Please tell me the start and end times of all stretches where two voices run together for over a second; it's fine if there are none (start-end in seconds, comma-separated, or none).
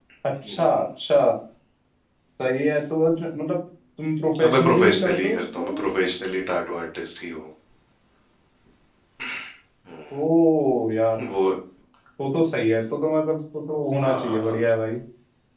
4.4-5.7